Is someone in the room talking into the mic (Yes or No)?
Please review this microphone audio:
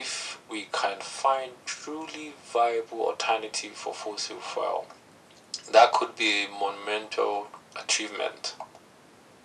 No